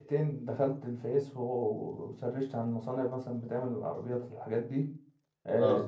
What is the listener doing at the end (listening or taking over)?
listening